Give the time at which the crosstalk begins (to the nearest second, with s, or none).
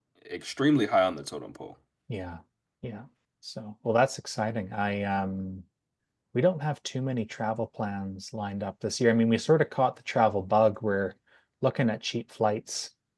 none